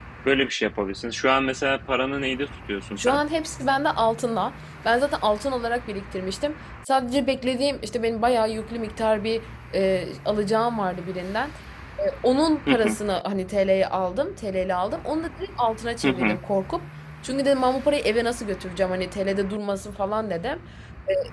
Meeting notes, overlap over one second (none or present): none